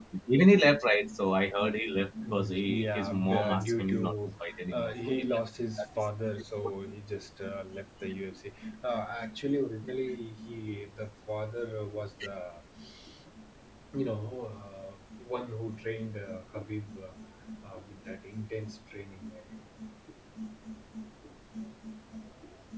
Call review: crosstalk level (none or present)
present